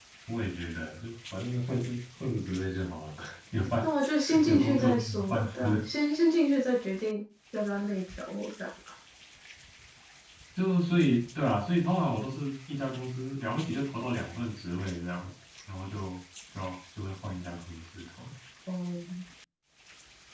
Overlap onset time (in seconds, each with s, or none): 4.4 s